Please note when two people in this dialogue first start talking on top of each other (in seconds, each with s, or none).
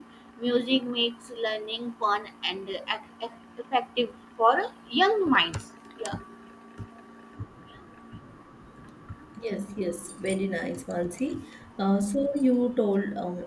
none